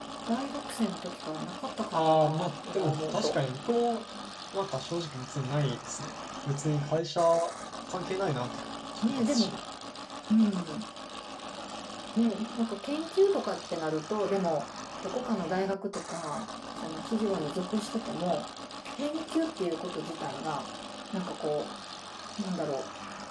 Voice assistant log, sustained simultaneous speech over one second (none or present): present